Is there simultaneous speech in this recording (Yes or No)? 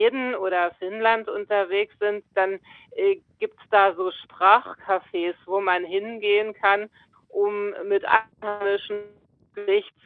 No